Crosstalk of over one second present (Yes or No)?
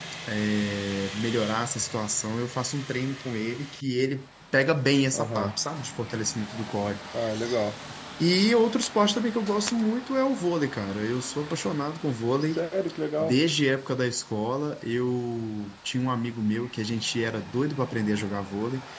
No